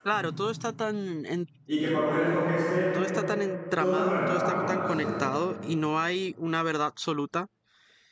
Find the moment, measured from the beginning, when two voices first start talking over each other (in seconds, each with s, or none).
3.8 s